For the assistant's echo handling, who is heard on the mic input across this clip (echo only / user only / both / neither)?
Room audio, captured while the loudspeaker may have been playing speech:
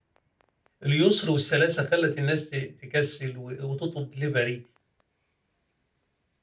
user only